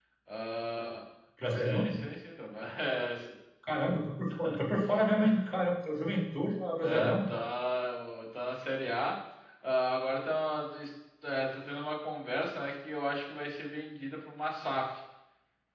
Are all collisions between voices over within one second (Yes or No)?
Yes